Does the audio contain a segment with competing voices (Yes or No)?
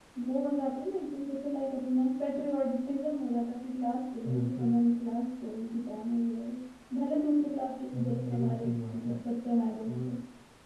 Yes